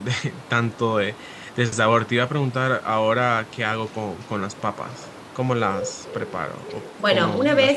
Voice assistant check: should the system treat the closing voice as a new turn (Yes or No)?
Yes